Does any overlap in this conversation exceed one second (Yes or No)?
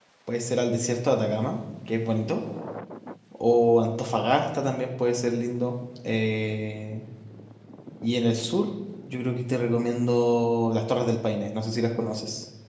No